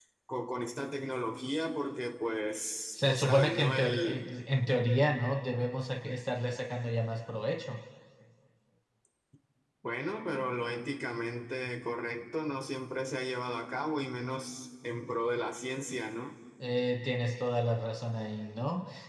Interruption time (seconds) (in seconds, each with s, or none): 3.0 s